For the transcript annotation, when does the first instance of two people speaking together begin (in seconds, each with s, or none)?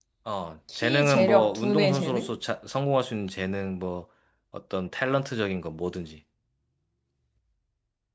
0.8 s